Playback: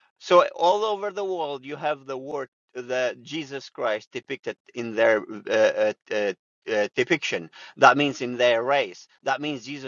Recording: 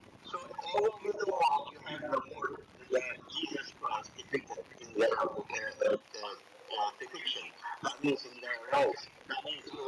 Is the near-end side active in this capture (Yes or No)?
No